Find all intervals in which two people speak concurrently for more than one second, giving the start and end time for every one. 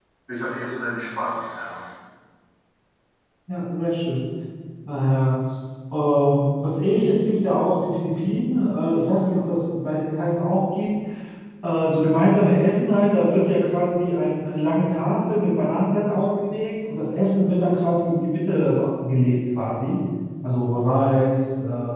none

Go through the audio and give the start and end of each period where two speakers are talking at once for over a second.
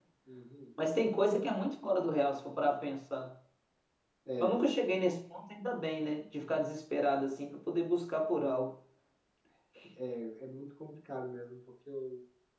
none

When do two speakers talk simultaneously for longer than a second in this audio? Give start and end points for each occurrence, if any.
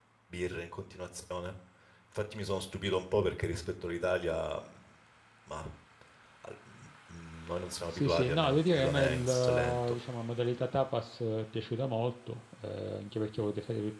7.9-9.8

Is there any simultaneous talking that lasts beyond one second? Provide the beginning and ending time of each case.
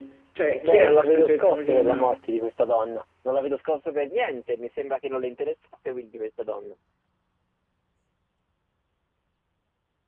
0.6-2.2

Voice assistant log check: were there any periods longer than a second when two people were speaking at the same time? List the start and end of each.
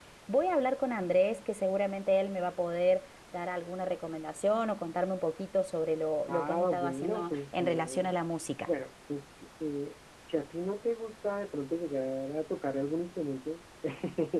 6.3-8.2

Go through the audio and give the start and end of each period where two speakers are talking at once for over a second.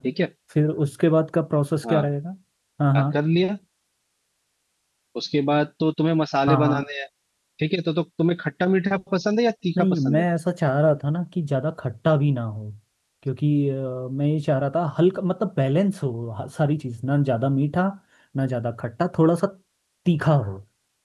none

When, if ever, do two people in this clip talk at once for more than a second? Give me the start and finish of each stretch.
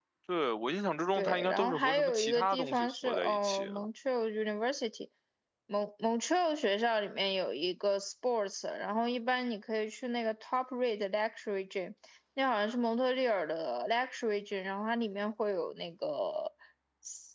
1.1-3.9

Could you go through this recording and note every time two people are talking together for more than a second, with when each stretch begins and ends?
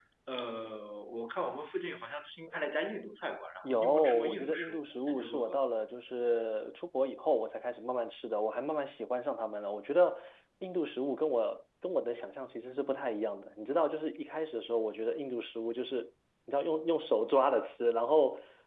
3.6-5.6

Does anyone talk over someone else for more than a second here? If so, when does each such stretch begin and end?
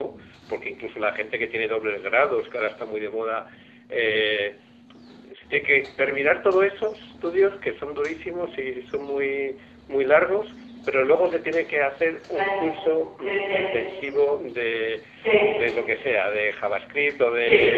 none

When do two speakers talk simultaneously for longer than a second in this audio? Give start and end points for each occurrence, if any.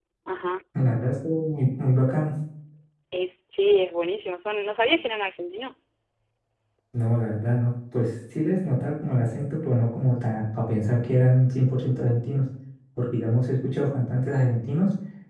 none

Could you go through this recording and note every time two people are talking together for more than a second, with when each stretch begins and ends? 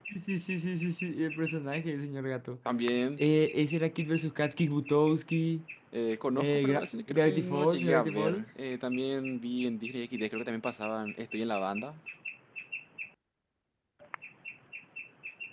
6.4-8.4

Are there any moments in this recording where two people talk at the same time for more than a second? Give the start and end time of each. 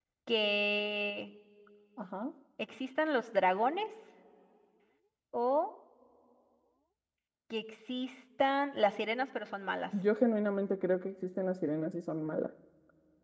none

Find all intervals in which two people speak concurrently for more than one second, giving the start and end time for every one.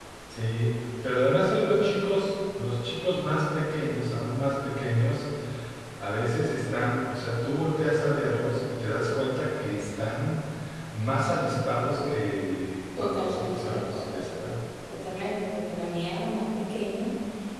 13.0-14.3

